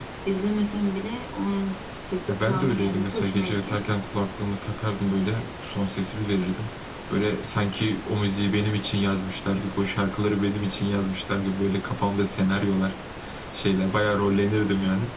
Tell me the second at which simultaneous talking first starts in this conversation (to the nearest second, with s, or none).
2 s